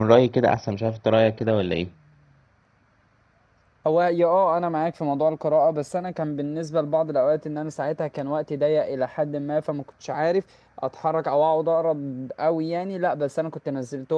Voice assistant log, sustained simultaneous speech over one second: none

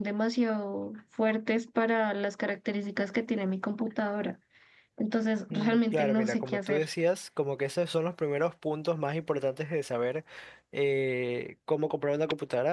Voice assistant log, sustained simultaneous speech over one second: present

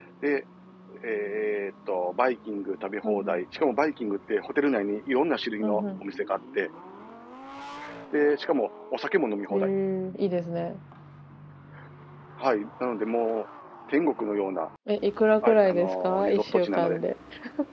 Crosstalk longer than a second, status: present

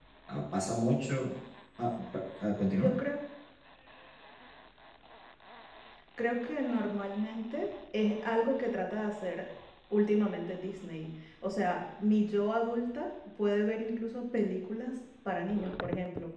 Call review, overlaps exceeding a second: none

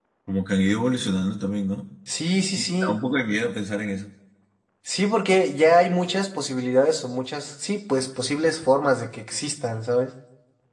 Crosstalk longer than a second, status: none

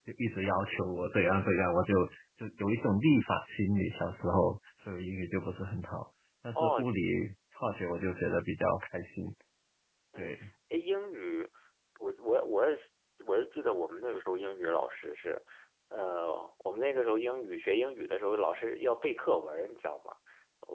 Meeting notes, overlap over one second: none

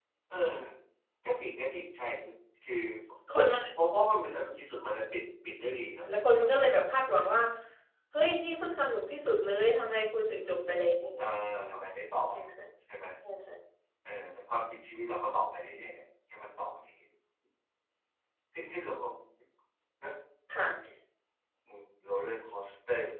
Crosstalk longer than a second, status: none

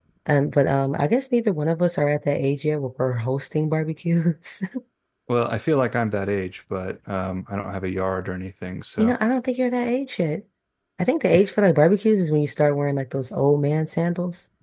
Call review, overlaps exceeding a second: none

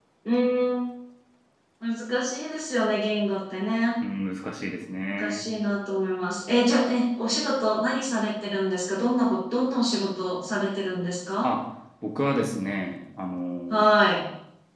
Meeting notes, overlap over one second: none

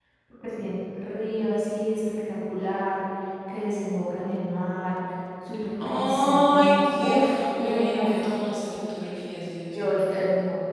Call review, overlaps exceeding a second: present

